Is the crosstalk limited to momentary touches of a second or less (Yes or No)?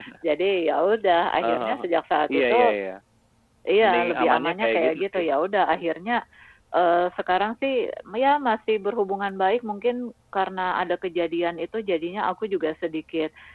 No